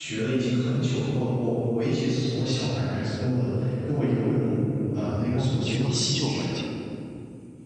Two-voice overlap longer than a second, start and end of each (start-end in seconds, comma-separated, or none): 5.3-6.6